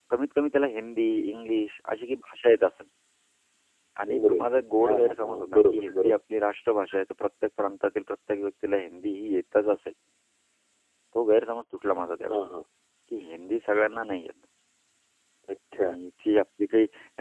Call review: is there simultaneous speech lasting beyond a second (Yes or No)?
Yes